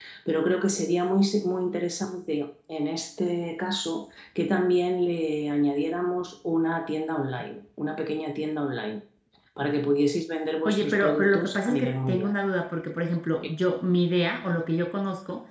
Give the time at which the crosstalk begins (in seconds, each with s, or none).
10.6 s